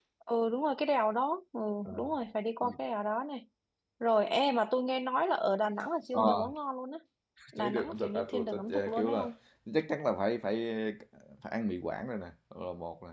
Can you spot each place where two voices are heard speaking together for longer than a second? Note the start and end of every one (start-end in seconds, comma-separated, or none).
7.6-9.3